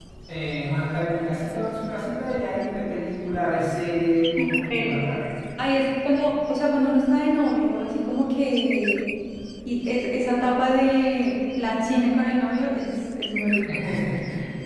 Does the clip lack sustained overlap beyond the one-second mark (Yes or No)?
Yes